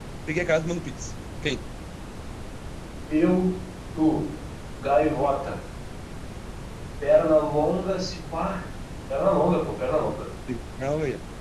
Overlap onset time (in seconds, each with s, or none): none